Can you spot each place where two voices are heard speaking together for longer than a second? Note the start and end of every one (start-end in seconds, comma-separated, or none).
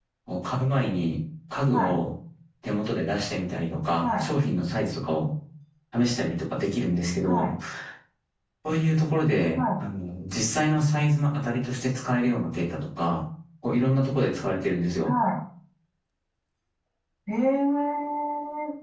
none